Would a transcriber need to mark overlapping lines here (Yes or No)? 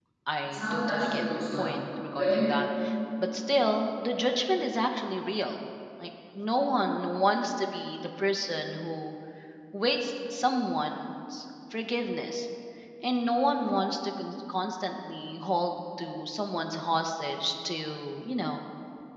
Yes